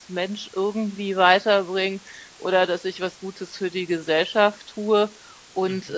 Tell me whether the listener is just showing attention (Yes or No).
Yes